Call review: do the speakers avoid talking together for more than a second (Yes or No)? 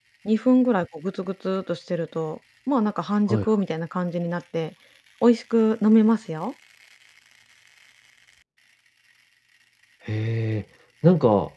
Yes